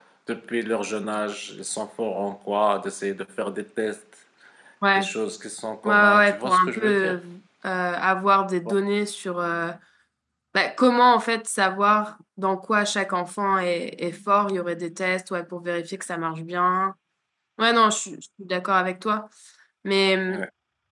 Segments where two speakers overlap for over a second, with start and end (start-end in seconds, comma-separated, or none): 5.8-7.2